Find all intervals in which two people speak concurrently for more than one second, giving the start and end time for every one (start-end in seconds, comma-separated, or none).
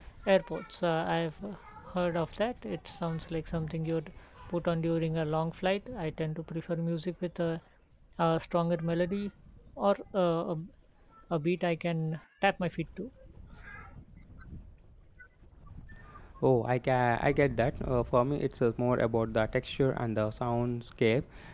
none